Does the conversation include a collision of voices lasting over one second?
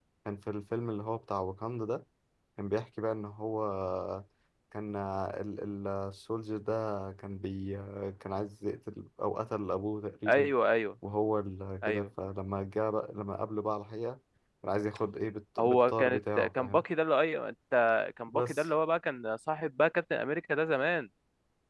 Yes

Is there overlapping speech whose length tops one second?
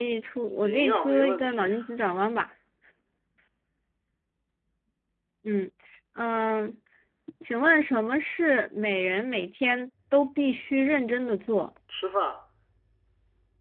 Yes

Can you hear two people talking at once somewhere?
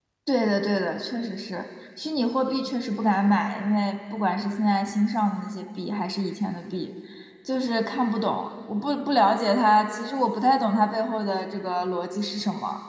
No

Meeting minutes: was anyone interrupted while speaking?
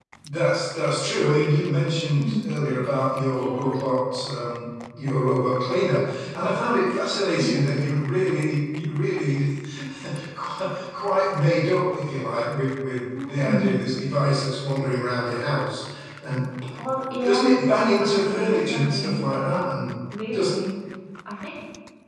Yes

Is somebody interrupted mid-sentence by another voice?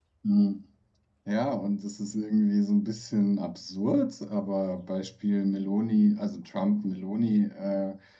No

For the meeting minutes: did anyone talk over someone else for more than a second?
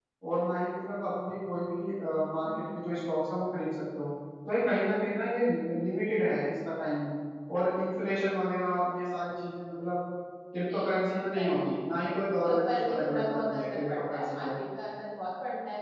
Yes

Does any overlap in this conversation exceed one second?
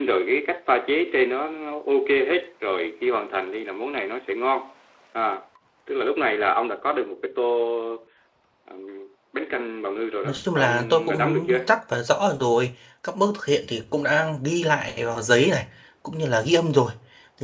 Yes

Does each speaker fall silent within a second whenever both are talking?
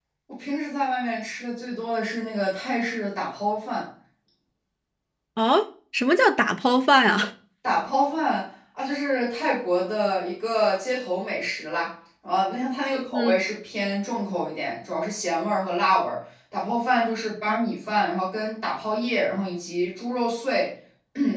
Yes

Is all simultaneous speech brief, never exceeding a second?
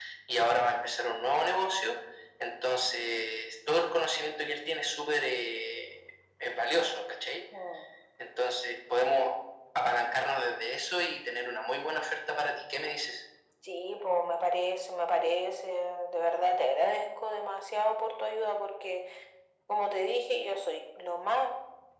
Yes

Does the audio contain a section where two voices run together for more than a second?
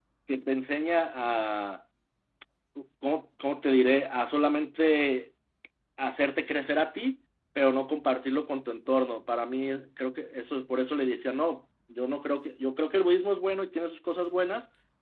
No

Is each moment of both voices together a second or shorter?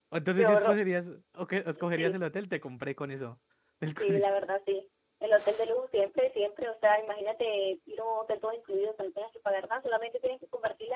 Yes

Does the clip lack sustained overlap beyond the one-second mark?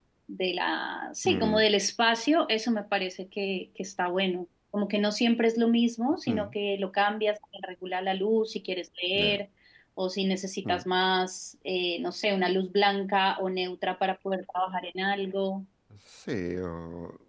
Yes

